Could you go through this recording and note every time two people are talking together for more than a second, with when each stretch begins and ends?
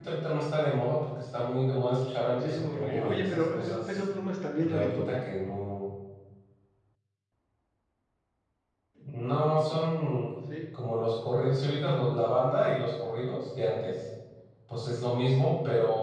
1.9-4.0

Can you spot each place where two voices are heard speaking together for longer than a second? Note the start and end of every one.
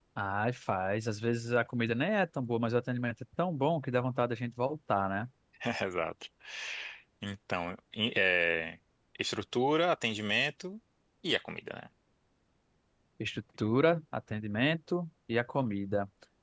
none

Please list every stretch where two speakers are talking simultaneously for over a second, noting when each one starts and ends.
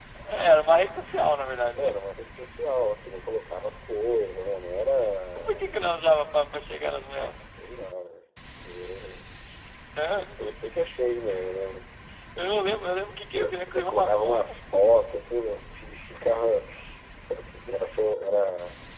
13.3-14.5

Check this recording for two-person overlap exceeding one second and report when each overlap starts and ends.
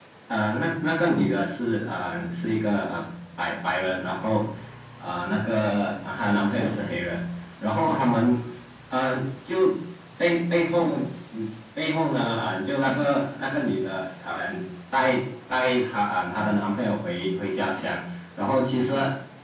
none

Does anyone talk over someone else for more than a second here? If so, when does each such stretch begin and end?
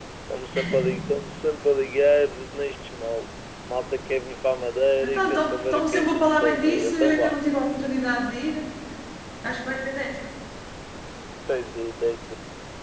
5.0-7.4

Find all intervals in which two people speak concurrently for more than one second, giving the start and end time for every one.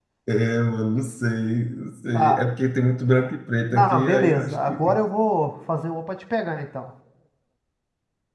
3.7-5.0

